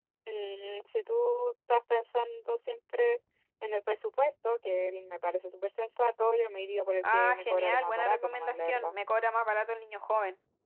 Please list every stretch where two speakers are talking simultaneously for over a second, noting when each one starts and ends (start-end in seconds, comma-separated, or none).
7.1-8.9